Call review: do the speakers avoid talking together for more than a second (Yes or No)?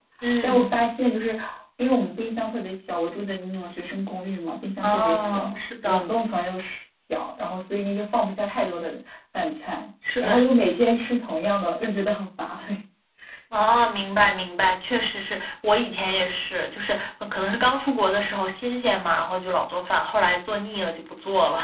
No